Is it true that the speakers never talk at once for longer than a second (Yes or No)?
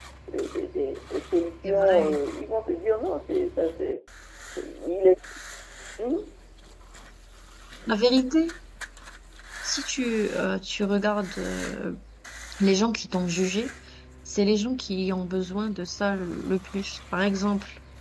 Yes